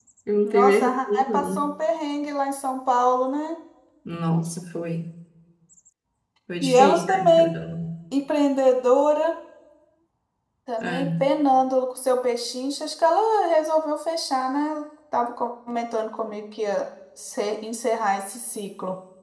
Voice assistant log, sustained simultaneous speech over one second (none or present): present